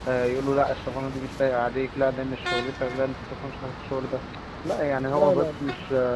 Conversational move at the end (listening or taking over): listening